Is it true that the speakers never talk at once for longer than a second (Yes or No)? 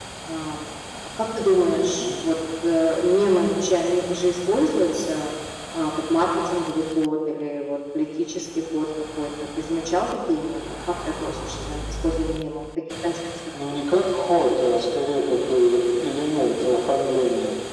Yes